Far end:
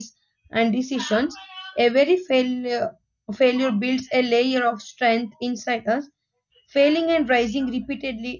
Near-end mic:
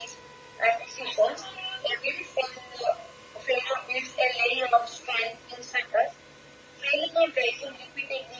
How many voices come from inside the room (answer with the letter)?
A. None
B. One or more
A